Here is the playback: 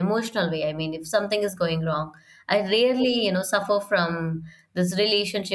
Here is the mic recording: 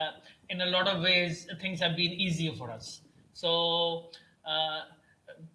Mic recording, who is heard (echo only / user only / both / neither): user only